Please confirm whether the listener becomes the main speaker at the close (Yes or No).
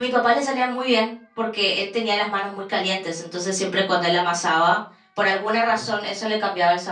No